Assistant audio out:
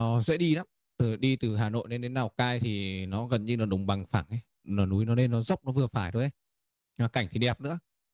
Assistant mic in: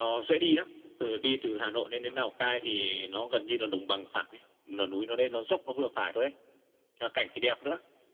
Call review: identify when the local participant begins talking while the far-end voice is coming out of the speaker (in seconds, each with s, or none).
none